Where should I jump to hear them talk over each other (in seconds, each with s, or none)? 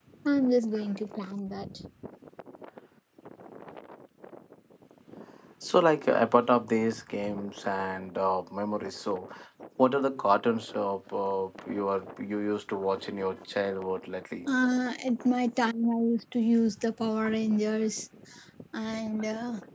none